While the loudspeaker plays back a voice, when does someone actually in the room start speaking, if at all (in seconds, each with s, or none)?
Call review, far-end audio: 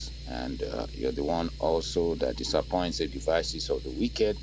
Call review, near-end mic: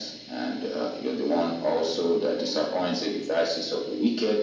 none